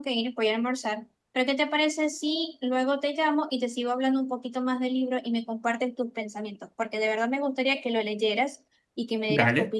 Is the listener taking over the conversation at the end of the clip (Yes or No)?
Yes